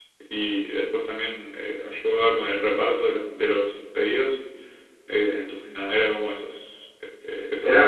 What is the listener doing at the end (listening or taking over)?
taking over